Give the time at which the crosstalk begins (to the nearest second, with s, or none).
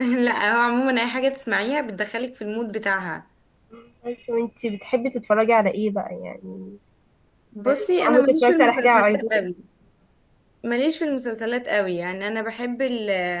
8 s